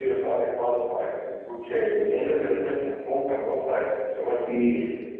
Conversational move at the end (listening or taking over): taking over